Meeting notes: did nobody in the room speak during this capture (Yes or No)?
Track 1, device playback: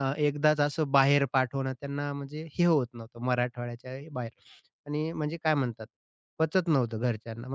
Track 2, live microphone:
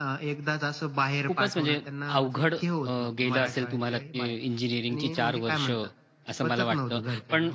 No